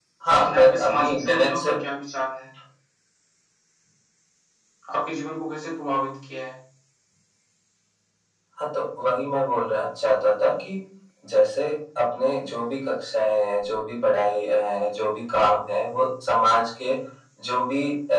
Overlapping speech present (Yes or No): Yes